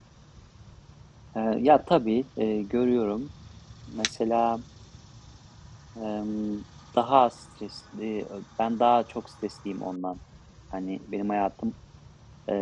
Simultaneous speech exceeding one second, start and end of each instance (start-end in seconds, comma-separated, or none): none